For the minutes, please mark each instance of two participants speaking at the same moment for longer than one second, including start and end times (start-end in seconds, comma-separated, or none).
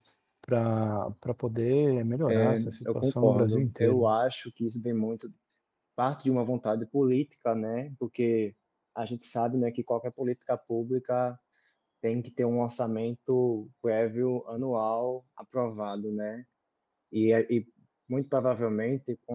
2.3-4.1